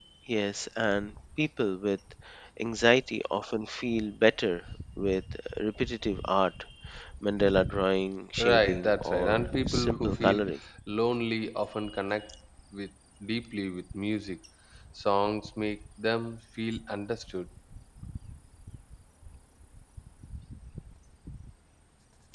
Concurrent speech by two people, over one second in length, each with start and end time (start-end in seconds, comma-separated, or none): 8.4-10.5